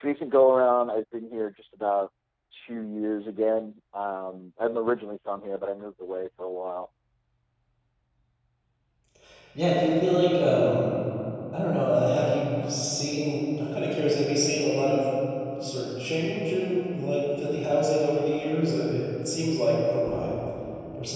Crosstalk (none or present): none